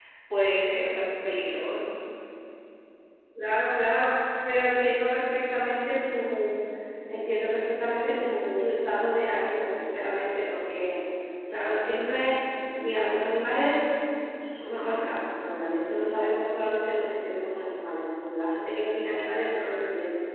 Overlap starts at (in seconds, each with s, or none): none